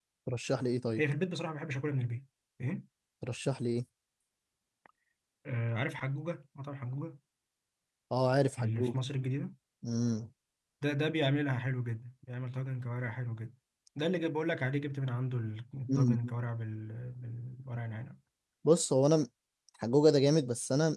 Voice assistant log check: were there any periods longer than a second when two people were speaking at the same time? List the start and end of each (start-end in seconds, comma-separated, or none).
none